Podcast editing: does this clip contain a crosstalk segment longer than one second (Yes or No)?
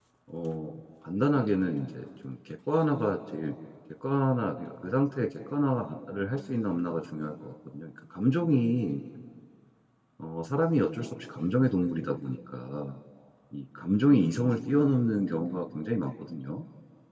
No